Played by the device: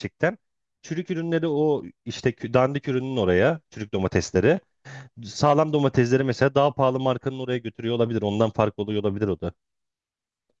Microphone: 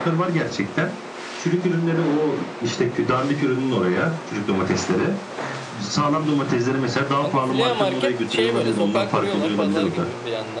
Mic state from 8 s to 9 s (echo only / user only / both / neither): both